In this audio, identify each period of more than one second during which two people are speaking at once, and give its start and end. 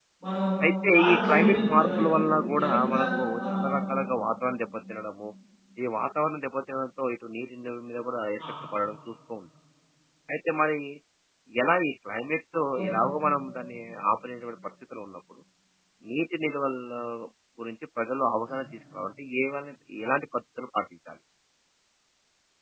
0.9-2.2

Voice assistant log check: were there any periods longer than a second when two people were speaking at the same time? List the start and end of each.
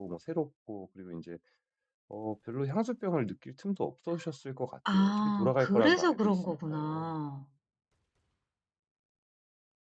4.9-7.0

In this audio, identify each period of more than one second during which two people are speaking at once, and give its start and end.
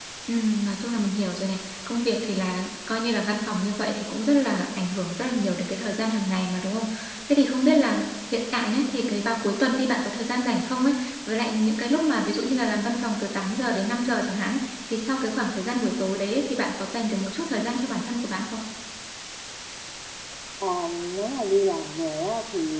none

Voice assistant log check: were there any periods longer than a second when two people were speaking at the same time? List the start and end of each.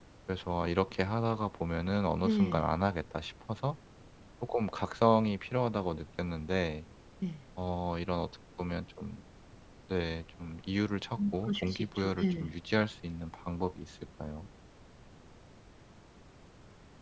11.2-12.5

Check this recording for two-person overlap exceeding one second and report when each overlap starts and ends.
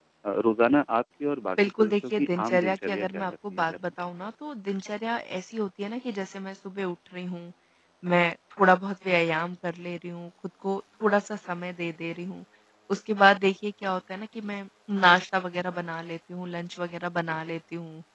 1.8-3.9

